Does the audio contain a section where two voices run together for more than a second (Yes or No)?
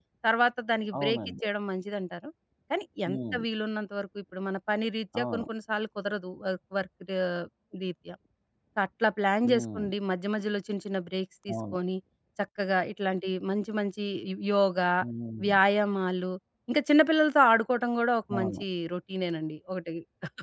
No